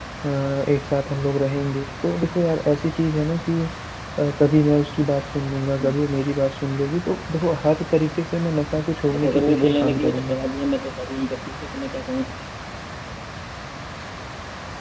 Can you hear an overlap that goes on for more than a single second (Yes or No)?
Yes